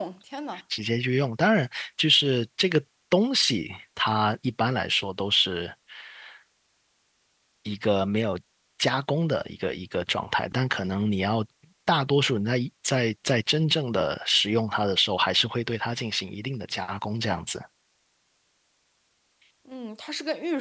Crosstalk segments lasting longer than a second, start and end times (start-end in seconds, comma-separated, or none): none